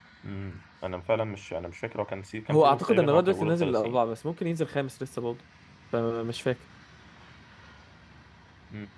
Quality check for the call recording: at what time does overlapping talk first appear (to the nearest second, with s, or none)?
2 s